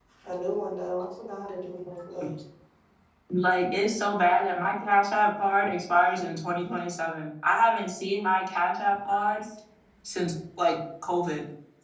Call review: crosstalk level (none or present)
none